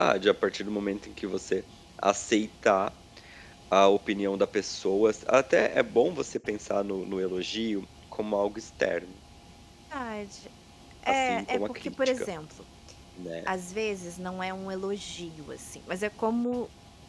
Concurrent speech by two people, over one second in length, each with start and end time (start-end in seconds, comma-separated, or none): 11.1-12.3